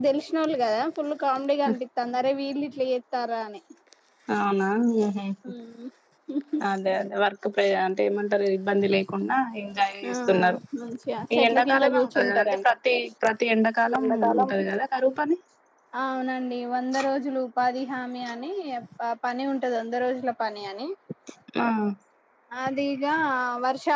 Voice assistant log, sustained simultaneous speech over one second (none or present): present